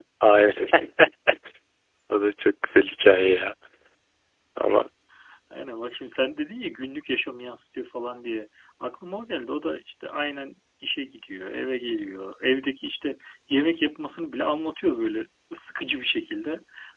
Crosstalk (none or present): none